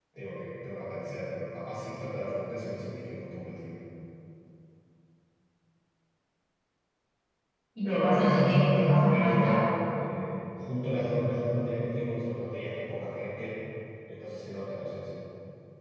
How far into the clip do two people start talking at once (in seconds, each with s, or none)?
7.8 s